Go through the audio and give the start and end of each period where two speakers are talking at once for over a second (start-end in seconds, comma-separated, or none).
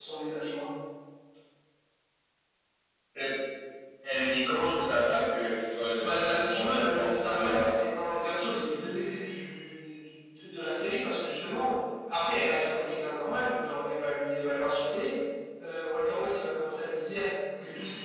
6.0-7.7